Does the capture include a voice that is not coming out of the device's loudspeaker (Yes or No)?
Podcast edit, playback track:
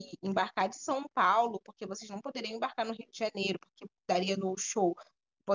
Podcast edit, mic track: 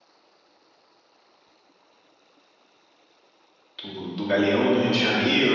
Yes